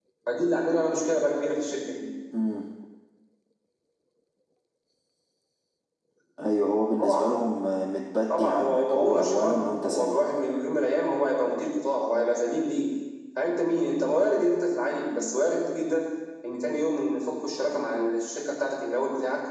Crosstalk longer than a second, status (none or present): present